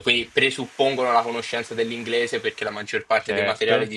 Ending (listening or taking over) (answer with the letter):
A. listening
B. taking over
A